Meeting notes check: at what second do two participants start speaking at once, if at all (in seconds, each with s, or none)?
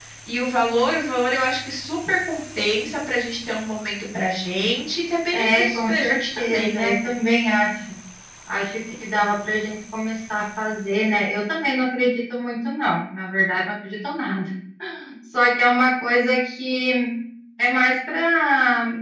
5.3 s